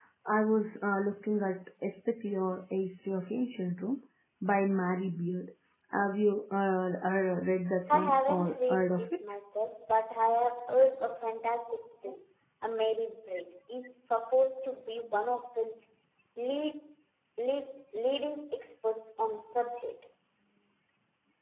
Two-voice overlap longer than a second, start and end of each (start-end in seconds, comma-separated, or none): 7.9-9.2